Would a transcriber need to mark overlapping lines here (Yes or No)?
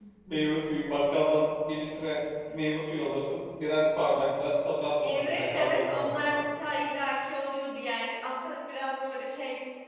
Yes